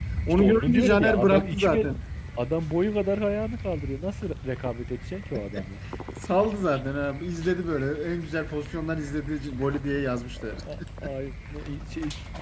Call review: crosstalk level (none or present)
present